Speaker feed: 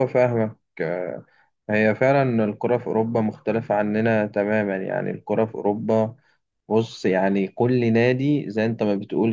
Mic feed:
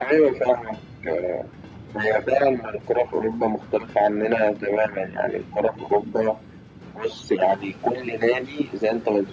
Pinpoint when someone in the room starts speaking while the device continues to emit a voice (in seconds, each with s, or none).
none